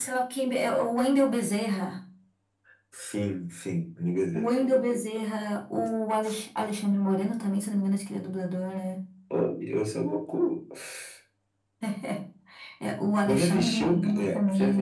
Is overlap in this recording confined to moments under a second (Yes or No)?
No